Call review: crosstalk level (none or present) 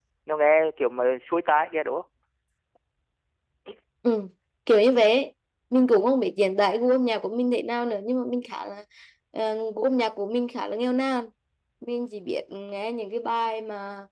none